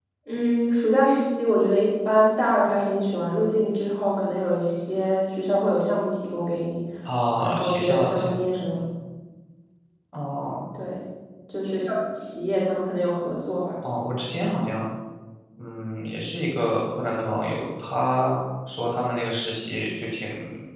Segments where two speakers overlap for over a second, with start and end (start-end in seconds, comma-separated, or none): 7.4-8.8